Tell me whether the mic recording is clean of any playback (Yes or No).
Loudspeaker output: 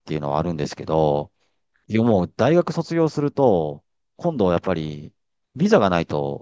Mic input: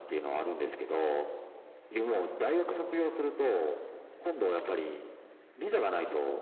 No